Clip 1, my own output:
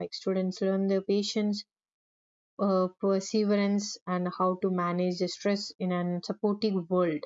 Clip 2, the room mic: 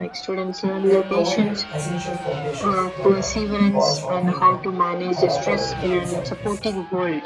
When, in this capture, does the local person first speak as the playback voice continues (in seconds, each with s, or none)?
0.8 s